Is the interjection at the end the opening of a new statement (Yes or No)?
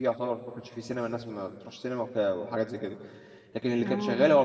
No